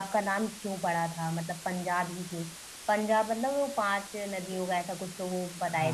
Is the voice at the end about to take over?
Yes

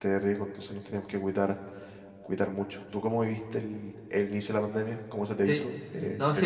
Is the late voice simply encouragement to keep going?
No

